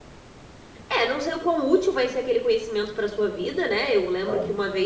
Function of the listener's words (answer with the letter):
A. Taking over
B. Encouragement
B